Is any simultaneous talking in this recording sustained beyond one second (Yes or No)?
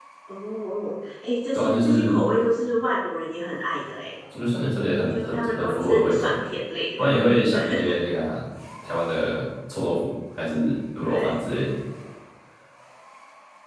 Yes